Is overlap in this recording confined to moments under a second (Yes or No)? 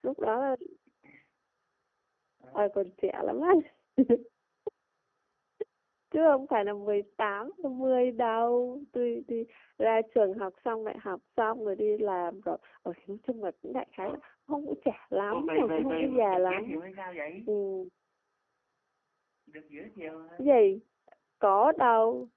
No